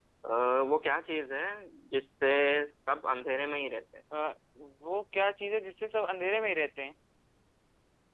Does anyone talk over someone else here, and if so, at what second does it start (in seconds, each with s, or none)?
none